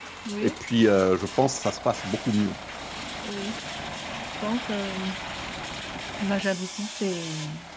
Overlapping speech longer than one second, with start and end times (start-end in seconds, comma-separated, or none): none